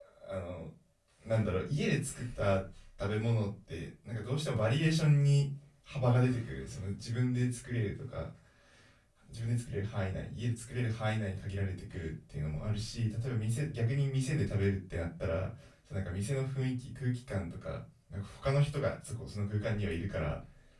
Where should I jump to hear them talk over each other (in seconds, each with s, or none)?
none